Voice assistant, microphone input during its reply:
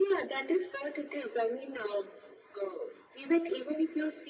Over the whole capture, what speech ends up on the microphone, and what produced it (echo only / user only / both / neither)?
echo only